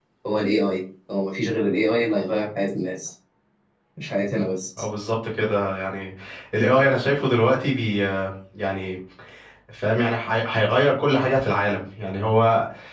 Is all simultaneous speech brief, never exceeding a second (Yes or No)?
Yes